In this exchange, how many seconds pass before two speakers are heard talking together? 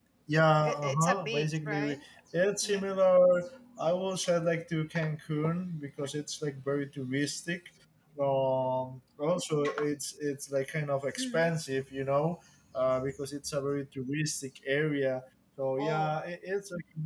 0.6 s

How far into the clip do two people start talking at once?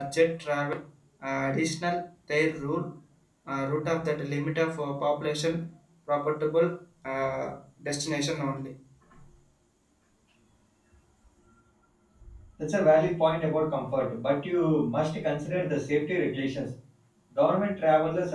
none

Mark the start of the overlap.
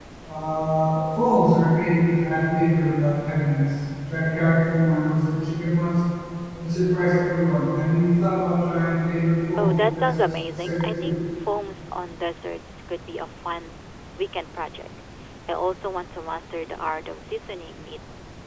9.6 s

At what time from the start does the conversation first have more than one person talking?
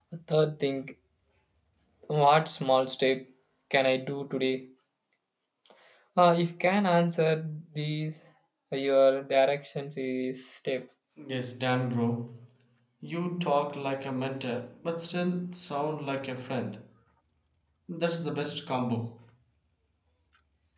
none

